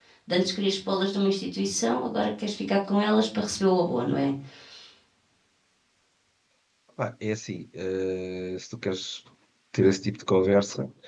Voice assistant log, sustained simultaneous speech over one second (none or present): none